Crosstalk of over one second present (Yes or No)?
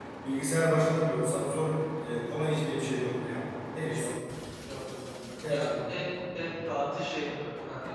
No